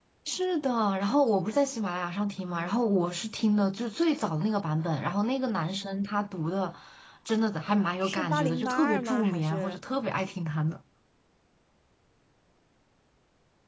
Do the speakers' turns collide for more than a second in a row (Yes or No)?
Yes